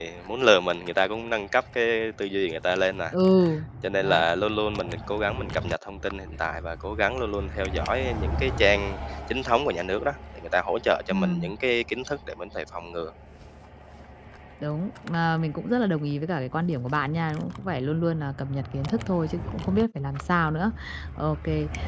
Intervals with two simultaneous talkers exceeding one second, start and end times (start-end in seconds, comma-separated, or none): none